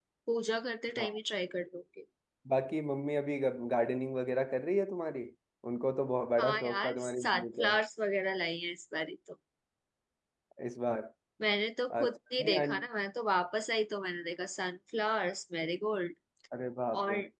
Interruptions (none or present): present